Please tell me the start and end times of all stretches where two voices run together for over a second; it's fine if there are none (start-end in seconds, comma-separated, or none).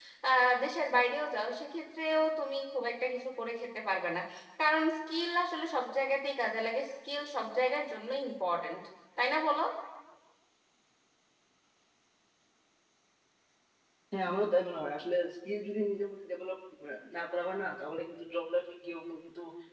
none